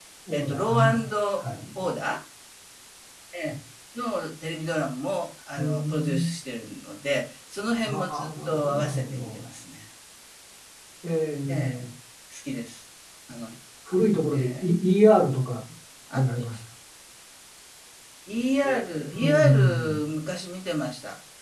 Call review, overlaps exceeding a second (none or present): present